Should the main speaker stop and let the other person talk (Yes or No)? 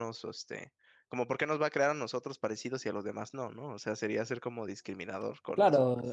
Yes